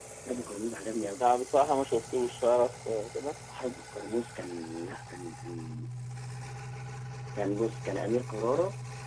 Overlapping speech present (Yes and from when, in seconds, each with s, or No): No